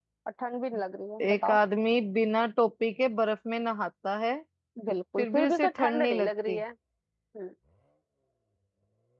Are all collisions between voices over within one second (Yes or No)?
No